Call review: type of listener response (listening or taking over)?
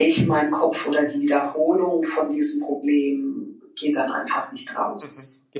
taking over